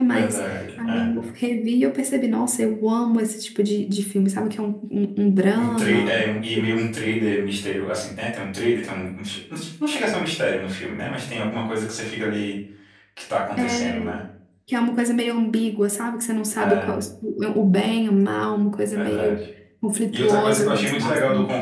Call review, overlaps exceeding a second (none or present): present